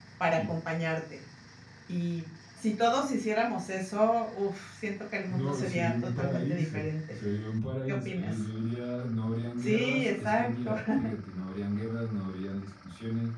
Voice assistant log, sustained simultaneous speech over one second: present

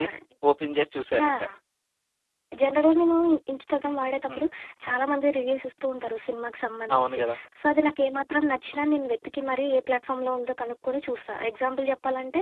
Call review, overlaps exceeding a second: none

